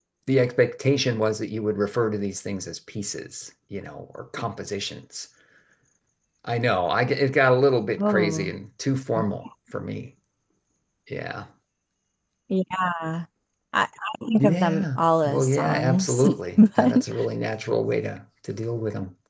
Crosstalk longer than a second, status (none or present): present